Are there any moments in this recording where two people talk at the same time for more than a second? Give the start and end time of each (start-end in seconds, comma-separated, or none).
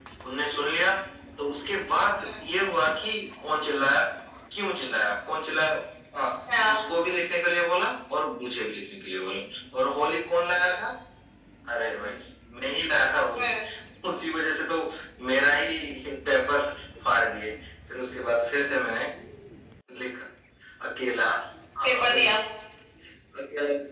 none